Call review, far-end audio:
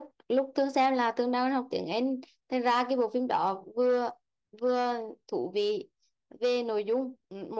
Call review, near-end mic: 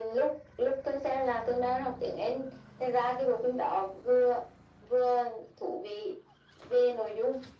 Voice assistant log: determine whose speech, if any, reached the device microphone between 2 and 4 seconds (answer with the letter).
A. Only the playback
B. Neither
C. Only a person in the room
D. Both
A